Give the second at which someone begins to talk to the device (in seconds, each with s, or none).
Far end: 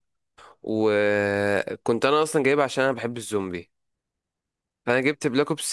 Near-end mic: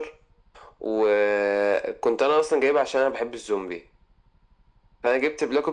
none